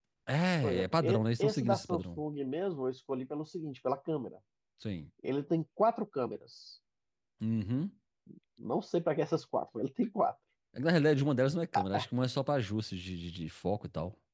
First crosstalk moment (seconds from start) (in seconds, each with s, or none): 0.6 s